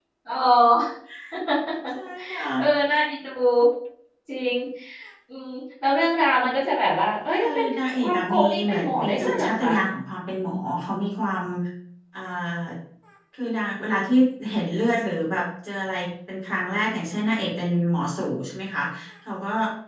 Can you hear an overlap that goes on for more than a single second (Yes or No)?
Yes